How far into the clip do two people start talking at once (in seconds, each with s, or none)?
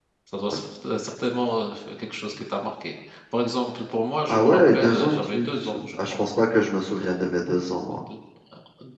4.3 s